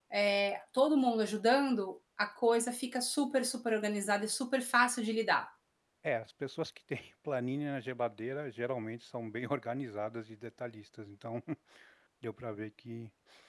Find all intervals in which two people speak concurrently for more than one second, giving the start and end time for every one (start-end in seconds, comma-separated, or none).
none